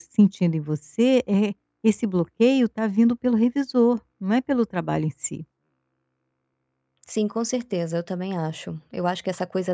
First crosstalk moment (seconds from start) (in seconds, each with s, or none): none